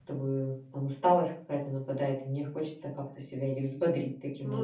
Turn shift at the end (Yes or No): Yes